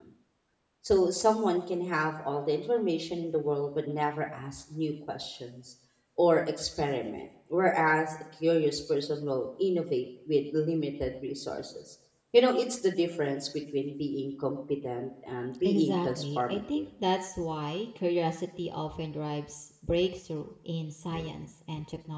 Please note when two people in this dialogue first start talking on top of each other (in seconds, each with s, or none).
15.6 s